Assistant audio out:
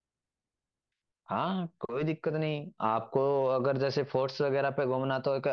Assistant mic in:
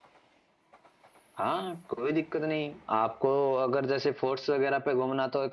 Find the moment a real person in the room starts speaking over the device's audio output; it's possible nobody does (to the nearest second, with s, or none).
none